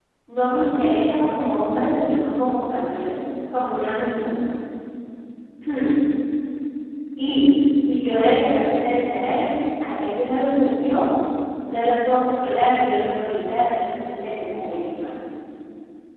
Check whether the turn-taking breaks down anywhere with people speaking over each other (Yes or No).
No